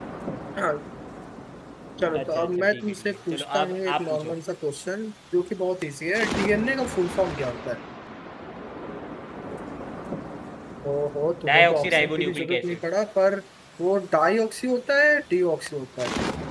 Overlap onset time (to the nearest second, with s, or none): 2 s